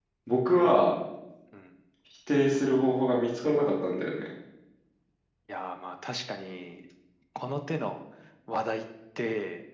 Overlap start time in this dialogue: none

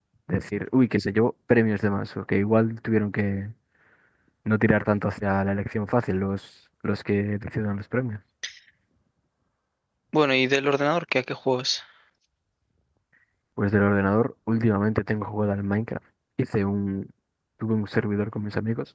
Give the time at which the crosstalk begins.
none

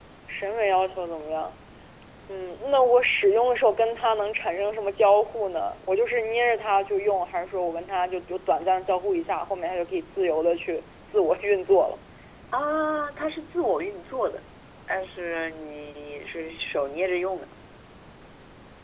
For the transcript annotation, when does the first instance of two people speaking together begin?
none

